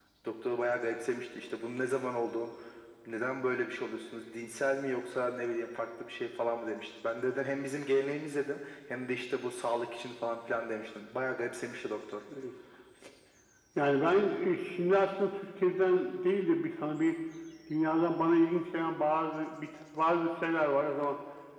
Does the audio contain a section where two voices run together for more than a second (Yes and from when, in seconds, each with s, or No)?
No